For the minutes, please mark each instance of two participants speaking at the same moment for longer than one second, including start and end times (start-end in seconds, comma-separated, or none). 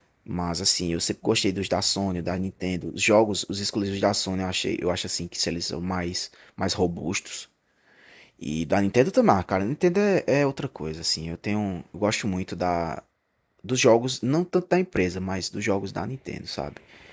none